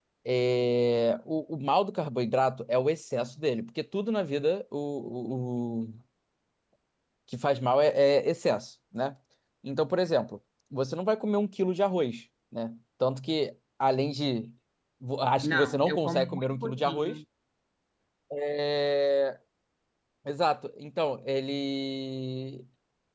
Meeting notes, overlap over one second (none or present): present